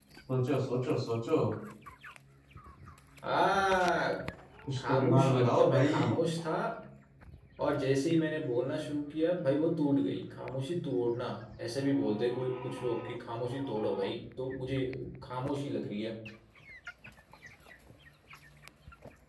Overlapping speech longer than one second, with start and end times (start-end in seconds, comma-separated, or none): 4.8-6.1